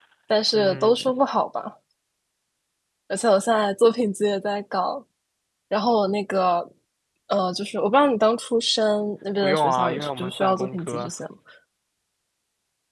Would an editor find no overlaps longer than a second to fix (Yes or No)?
No